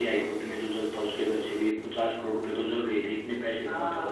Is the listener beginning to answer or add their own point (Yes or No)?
Yes